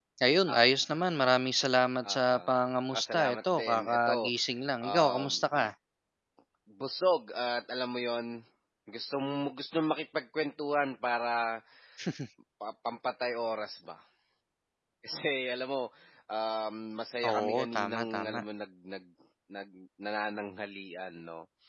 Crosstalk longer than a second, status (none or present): present